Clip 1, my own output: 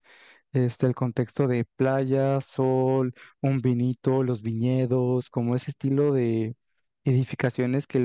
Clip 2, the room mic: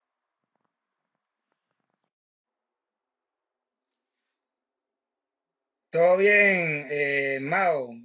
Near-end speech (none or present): present